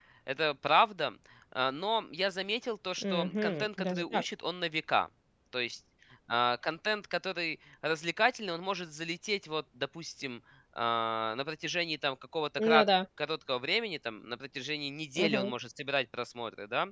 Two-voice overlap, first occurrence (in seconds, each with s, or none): 3.0 s